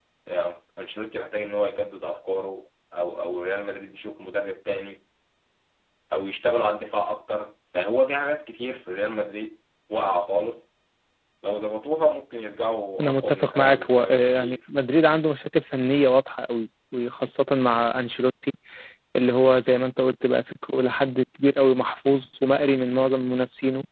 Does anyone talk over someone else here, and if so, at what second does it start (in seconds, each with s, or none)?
13.0 s